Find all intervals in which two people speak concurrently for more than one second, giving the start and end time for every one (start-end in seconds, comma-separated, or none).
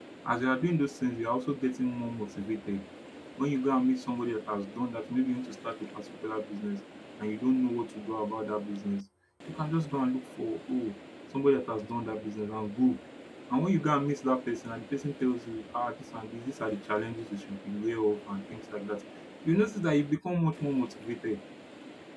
none